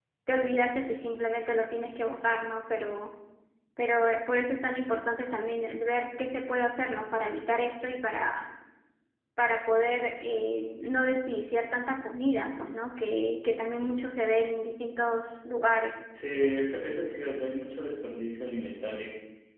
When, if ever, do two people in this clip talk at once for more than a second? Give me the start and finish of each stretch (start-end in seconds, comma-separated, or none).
none